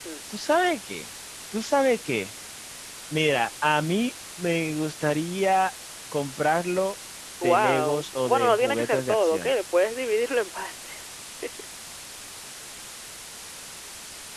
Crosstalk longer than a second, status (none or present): present